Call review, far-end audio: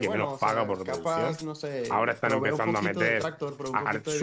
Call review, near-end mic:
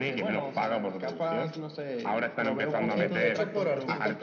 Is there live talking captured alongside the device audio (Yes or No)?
Yes